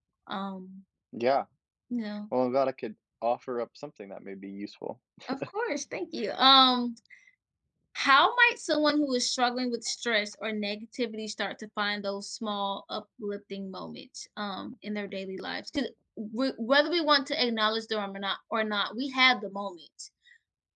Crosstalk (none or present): none